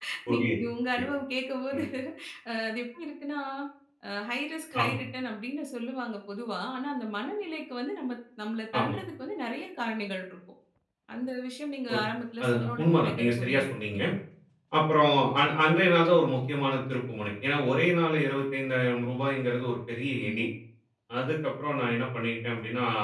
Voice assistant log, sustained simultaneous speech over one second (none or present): present